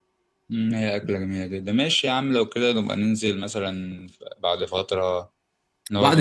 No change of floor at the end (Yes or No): No